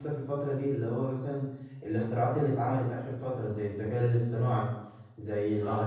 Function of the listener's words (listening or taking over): listening